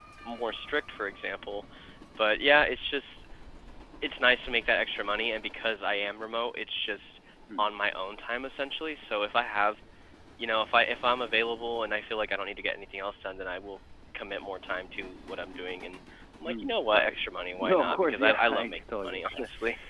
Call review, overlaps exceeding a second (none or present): present